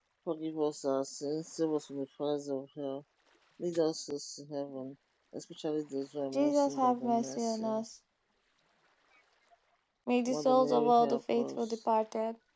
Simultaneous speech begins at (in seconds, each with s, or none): 6.3 s